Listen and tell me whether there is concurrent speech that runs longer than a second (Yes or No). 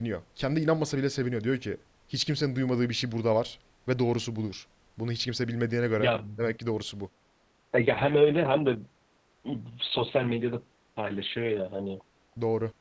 No